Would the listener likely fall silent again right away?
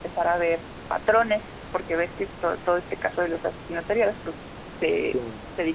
Yes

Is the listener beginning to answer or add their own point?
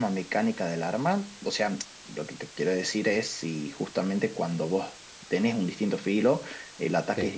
No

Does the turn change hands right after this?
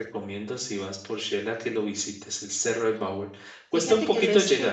Yes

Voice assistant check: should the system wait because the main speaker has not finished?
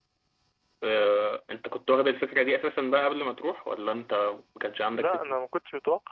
No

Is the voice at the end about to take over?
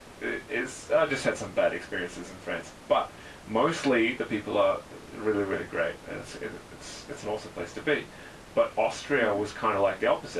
No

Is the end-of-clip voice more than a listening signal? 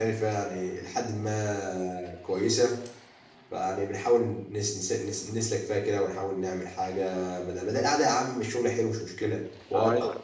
Yes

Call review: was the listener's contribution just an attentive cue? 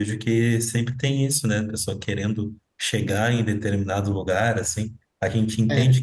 Yes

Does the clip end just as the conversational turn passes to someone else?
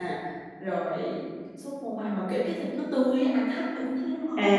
Yes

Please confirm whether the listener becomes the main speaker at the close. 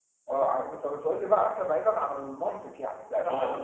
Yes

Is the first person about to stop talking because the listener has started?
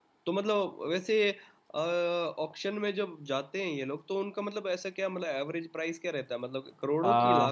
Yes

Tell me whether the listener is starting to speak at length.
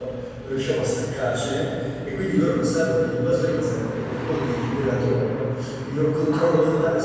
No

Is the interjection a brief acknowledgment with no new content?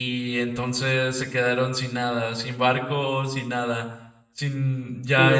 No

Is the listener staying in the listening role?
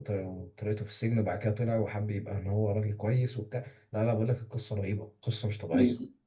No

